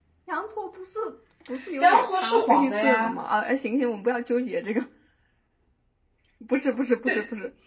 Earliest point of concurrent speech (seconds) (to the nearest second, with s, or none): 2 s